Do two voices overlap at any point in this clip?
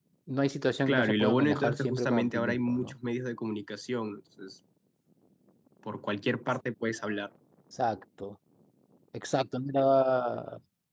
Yes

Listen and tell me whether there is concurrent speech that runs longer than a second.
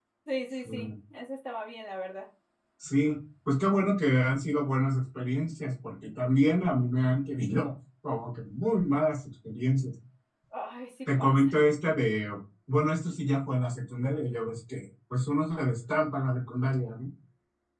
No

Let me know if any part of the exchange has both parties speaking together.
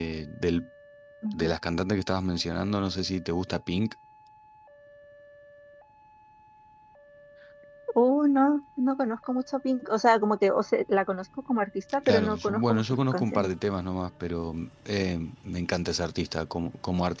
Yes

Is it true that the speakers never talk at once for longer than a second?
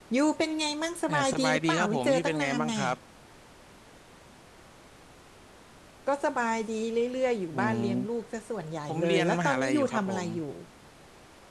No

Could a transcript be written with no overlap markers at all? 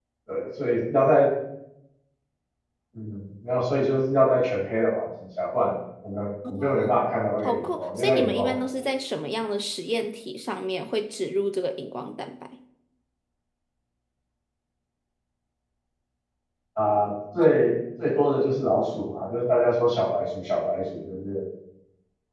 No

